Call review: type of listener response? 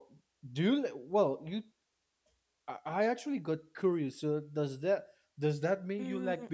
taking over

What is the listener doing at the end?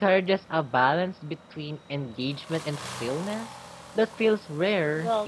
taking over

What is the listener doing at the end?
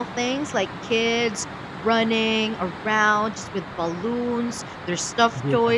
listening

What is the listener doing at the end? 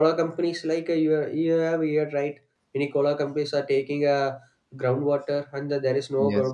listening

